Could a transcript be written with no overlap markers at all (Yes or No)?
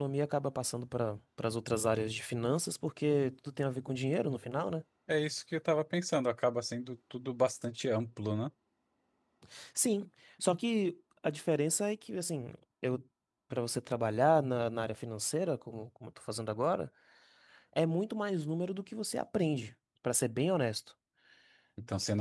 Yes